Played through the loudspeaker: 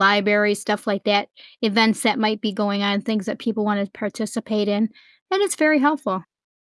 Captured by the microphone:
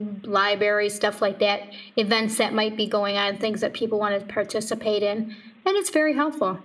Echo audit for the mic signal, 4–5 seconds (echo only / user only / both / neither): echo only